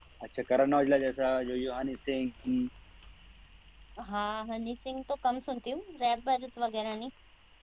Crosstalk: none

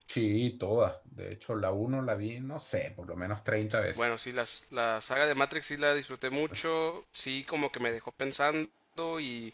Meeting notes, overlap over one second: none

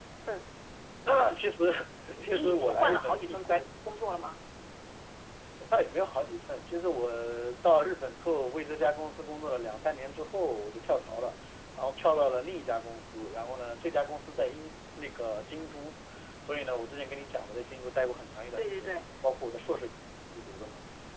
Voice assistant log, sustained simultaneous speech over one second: present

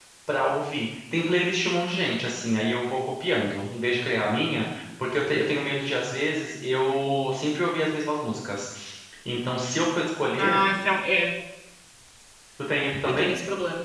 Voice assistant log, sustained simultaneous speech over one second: none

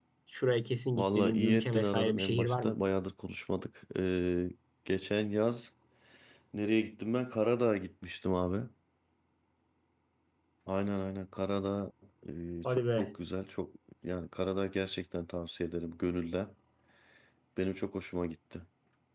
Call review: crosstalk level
present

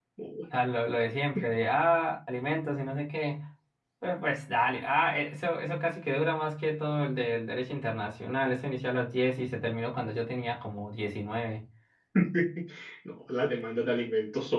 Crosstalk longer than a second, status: none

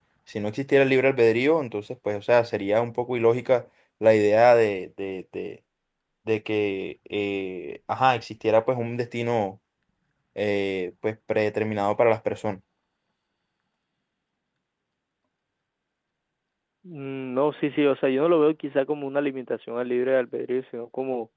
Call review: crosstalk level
none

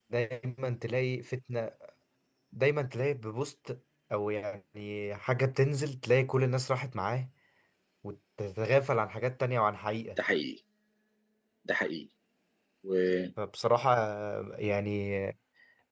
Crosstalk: none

